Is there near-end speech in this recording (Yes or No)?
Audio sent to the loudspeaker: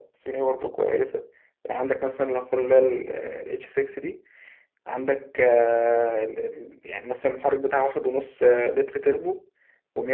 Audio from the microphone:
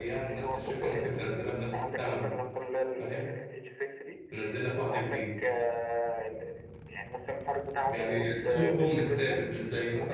Yes